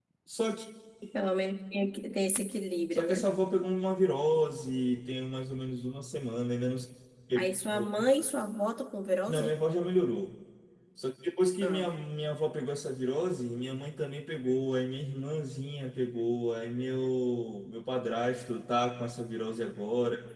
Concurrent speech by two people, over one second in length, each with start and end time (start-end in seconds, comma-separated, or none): none